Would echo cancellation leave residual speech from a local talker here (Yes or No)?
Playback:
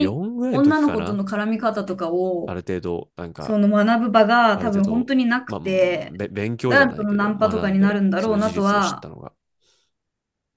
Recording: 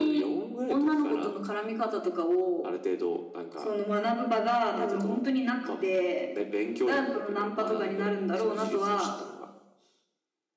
No